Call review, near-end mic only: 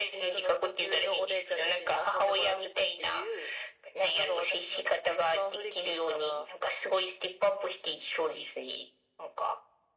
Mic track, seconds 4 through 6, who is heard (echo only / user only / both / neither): echo only